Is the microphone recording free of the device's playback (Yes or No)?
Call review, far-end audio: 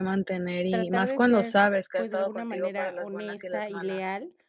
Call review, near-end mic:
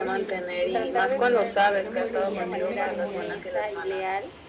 No